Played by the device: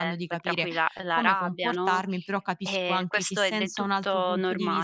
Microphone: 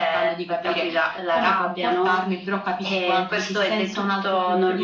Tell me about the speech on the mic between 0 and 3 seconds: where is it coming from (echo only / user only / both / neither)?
echo only